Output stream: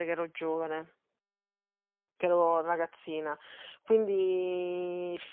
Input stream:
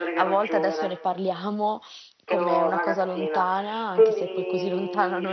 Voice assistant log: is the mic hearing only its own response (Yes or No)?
No